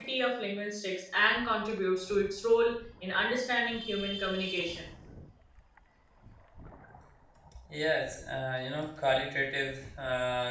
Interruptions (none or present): none